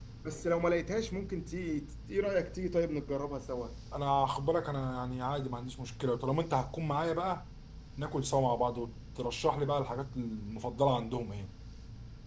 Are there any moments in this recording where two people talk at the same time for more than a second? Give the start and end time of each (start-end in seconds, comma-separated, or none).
none